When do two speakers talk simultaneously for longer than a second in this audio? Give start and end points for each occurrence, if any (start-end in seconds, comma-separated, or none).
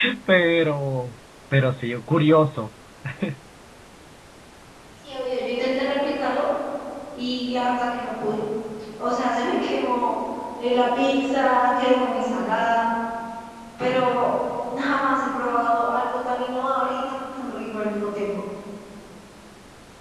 none